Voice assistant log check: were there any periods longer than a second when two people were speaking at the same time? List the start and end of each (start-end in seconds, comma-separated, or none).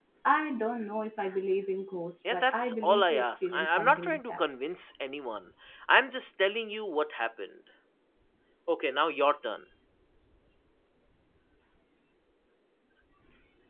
2.3-4.4